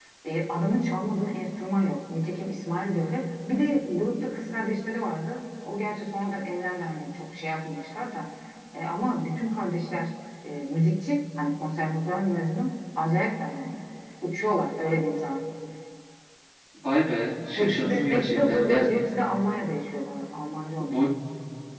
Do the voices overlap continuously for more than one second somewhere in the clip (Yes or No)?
Yes